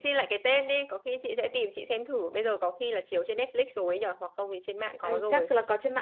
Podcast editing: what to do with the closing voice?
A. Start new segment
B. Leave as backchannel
A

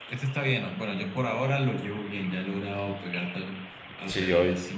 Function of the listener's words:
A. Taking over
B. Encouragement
A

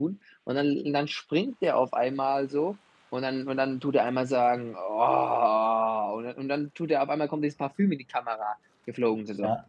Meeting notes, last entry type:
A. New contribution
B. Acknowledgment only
A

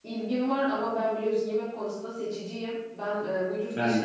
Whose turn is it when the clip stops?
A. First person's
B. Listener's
A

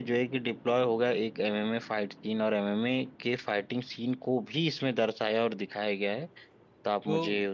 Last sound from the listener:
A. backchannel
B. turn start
B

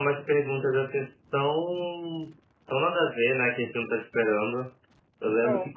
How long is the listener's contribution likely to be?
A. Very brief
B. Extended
A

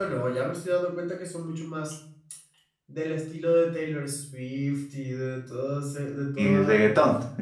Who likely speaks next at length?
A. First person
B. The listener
B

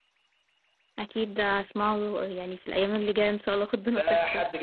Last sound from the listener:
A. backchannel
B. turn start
B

